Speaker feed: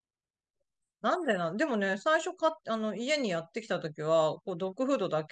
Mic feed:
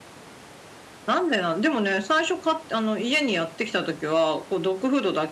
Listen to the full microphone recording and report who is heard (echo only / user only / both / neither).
echo only